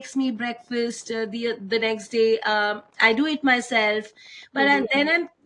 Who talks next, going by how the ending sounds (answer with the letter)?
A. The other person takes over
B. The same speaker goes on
B